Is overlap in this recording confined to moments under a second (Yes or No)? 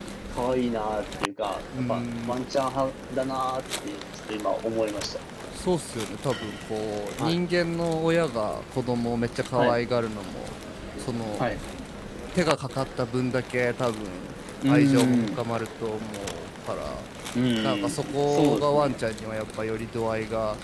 No